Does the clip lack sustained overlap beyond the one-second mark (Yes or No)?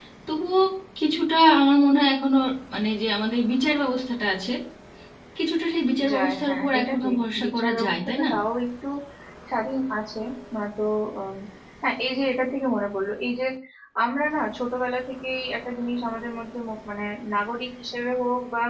No